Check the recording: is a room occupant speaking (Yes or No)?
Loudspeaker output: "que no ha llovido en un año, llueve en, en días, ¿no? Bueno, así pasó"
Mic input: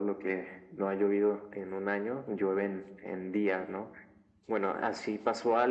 No